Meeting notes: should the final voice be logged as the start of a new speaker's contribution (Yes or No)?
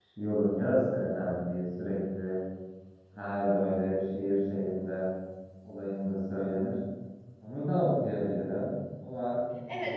Yes